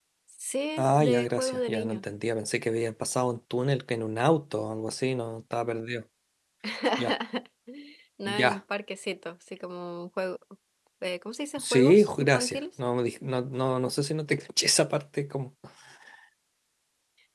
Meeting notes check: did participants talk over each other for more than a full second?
Yes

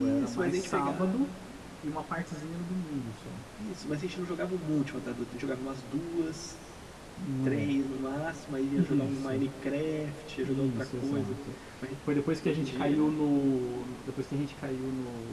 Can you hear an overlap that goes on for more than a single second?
Yes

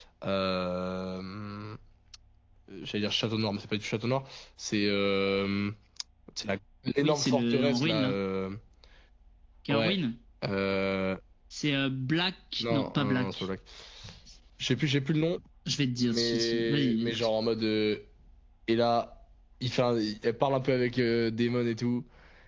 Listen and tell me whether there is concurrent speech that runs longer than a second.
Yes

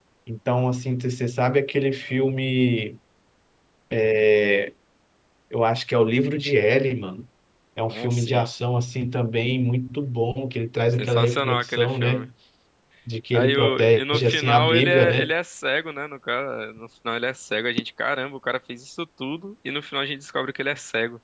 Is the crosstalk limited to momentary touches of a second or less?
No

